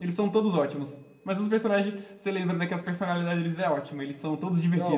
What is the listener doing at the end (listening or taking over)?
taking over